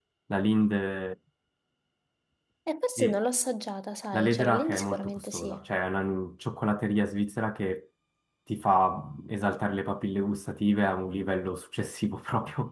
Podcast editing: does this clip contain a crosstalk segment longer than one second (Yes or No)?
Yes